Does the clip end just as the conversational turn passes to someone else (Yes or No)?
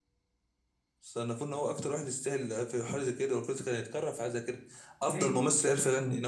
No